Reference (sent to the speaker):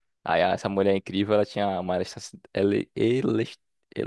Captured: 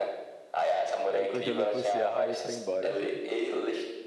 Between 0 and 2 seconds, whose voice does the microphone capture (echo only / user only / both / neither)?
both